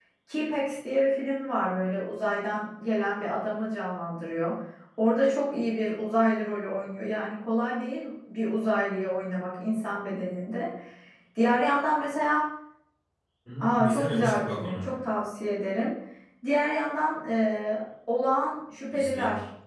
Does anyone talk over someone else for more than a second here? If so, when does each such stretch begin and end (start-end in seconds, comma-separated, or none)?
13.6-14.9